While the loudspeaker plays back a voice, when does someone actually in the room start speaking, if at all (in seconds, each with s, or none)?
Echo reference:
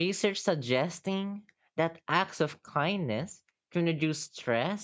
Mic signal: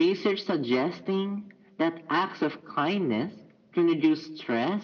none